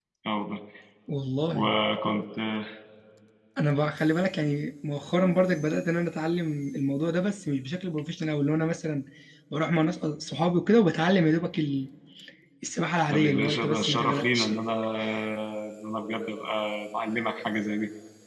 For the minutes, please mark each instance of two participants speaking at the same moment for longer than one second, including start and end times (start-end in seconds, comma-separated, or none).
13.1-14.6